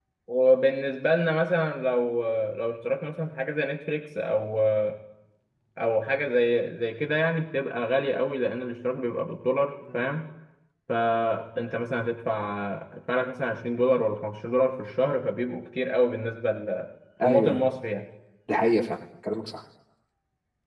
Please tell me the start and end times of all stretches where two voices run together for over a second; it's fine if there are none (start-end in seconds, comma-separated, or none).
none